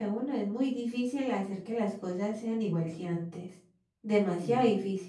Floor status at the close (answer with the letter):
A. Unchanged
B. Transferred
A